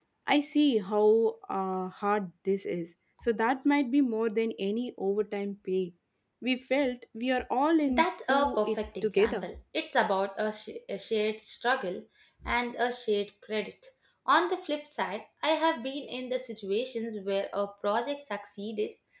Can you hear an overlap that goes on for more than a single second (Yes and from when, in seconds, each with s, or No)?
Yes, from 7.9 s